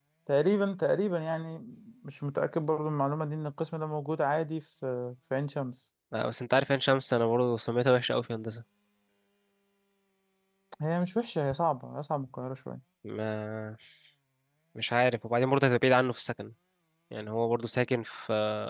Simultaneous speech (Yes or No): No